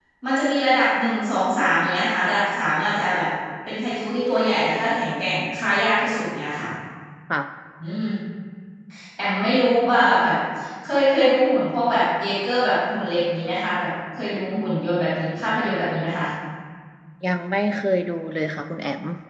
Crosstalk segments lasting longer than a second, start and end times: none

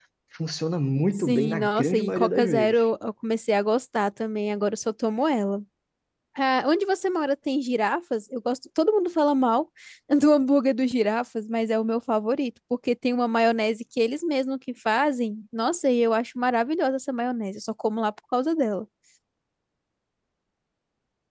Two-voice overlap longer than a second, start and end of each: 1.2-2.8

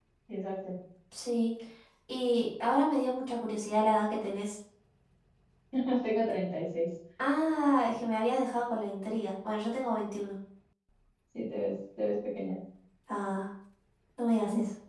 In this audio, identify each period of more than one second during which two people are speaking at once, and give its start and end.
none

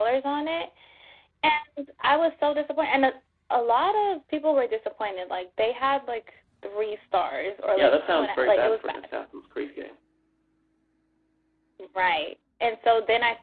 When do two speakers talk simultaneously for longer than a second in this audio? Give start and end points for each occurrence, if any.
7.8-9.0

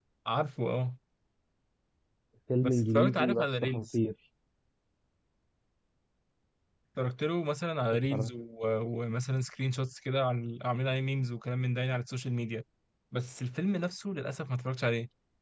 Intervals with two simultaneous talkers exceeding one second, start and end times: 2.6-4.0

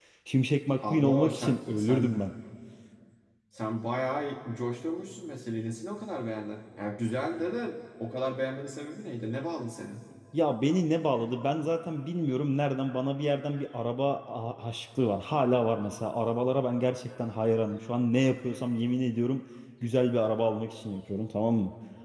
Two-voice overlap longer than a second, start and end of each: 0.9-2.2

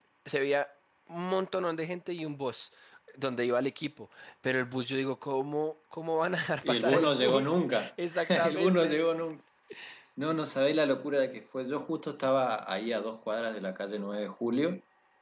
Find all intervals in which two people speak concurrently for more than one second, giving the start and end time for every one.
6.6-9.0

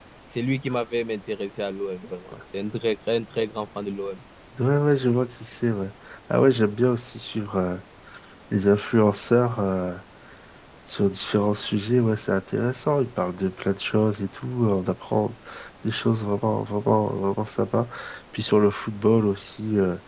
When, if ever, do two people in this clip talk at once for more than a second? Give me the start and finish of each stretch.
none

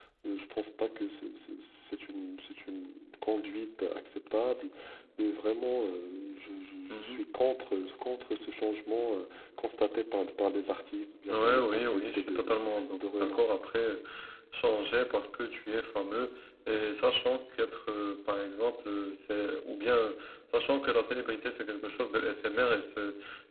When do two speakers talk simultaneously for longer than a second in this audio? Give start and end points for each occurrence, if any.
11.2-12.6

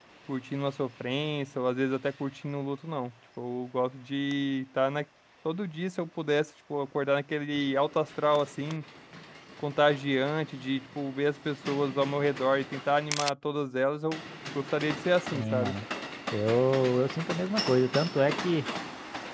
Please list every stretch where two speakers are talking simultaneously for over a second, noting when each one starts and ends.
none

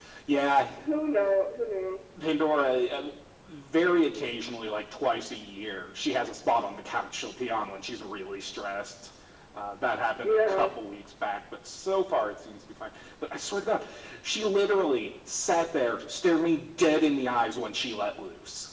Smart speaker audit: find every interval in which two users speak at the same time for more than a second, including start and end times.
none

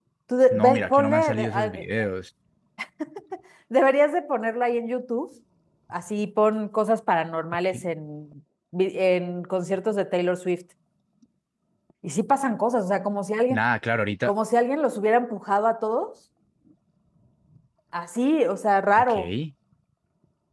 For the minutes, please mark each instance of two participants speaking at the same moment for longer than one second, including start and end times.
0.5-1.8

